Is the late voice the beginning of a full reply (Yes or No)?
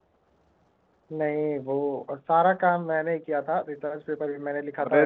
Yes